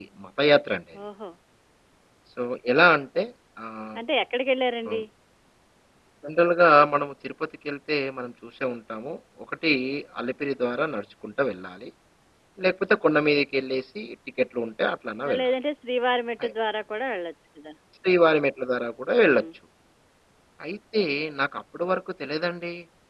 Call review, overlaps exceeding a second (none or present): none